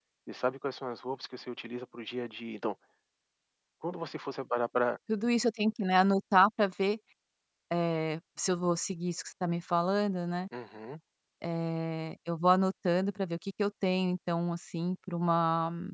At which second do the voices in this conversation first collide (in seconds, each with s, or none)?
none